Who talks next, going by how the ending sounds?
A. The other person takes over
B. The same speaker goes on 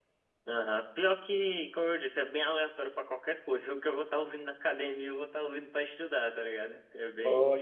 B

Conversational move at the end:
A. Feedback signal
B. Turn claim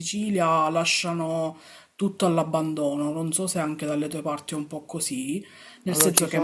B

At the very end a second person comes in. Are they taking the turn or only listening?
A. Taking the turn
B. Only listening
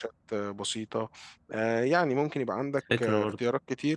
B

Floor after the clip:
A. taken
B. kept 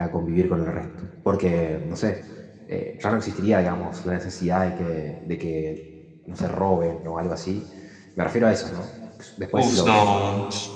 A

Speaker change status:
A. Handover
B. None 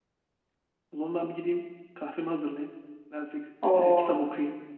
A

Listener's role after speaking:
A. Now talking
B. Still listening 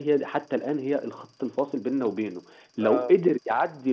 B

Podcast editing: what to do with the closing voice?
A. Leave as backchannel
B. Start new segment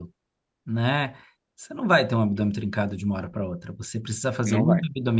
A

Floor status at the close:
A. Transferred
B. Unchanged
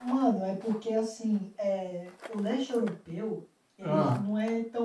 B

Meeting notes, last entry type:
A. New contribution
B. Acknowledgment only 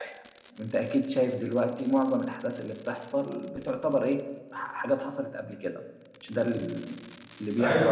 A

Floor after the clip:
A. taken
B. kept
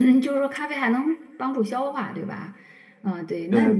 A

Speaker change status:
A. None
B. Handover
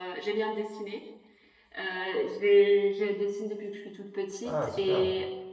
A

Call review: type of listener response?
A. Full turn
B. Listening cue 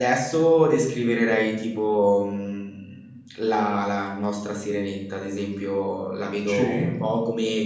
B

